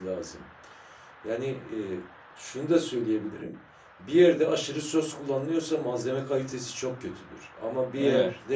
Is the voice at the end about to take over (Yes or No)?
No